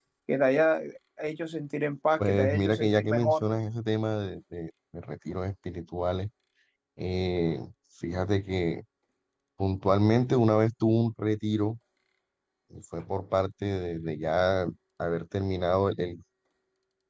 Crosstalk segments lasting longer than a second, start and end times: 2.2-3.4

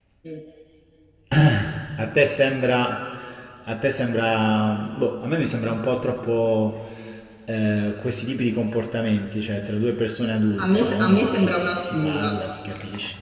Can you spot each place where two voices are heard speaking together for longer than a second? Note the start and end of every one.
10.6-12.3

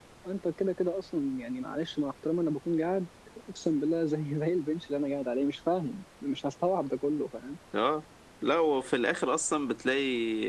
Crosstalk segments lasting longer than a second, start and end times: none

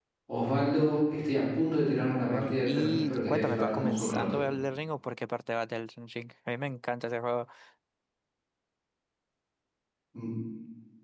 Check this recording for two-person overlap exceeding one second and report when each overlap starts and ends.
2.2-4.4

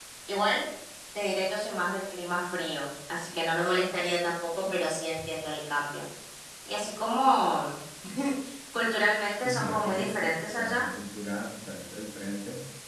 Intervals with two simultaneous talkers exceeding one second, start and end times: 9.4-10.9

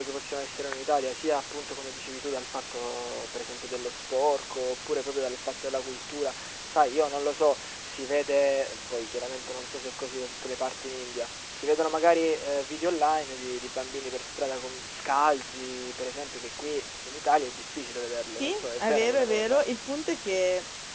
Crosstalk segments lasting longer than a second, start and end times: 18.4-19.6

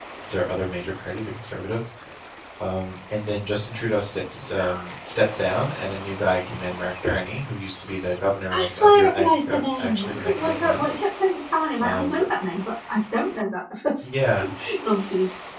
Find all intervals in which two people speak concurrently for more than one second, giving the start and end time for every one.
8.5-10.8

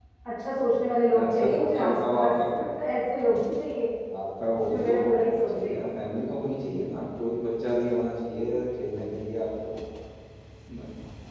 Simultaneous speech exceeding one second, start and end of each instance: 0.6-2.4

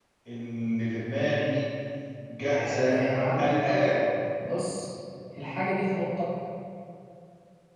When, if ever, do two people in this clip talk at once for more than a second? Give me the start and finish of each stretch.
none

